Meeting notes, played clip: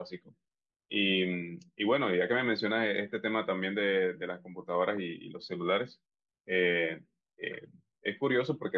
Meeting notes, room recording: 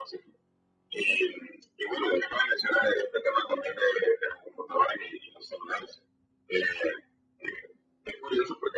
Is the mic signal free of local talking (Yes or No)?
Yes